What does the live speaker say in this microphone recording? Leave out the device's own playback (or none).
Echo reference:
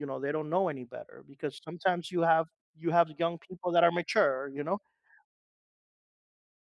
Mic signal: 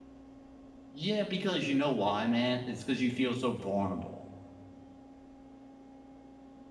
Yeah, because you know why, man? It's because you feel so vulnerable.